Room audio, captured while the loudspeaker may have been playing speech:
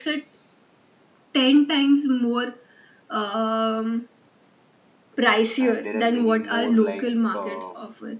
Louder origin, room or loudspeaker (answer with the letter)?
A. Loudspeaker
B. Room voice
A